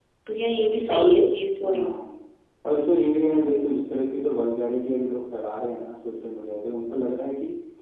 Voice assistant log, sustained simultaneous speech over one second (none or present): none